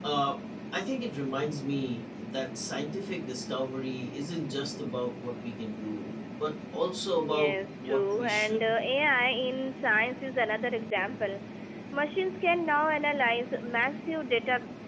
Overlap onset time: 7.2 s

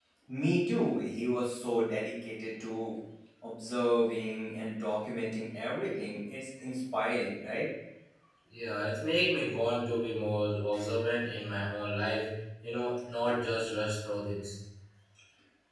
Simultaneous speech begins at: none

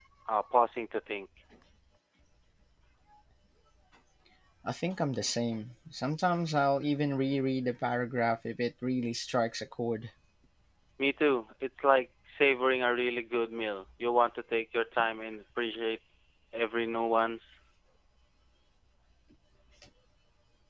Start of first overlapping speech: none

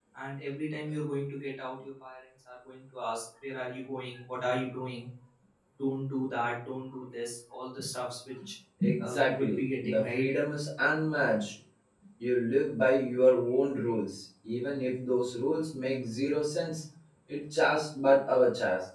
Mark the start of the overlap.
9.0 s

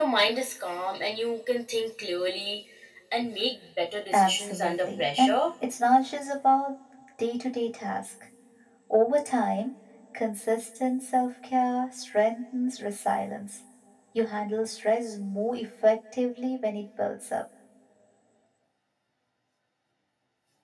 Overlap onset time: 4.1 s

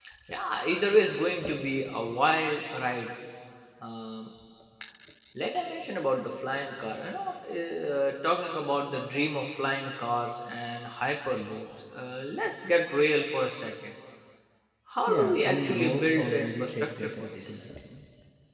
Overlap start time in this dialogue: 15.1 s

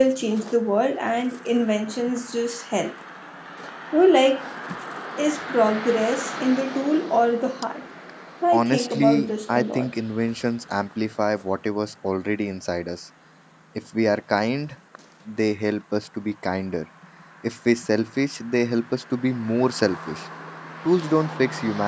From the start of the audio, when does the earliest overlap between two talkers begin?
8.5 s

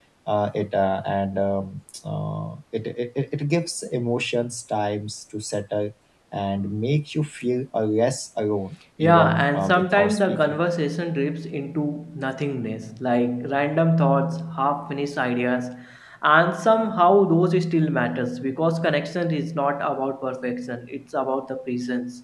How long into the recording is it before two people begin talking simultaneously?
9.0 s

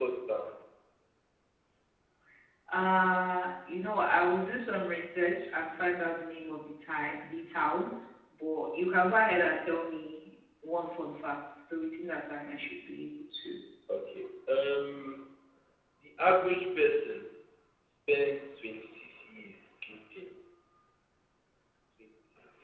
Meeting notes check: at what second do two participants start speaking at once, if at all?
none

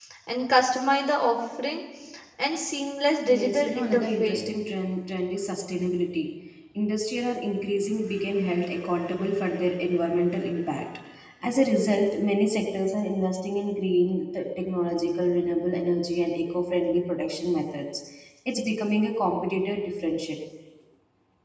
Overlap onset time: 3.3 s

